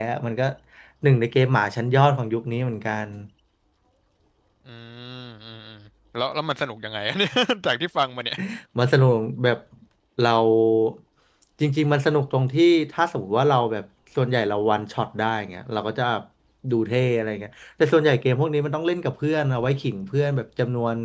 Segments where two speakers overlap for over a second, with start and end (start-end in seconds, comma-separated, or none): none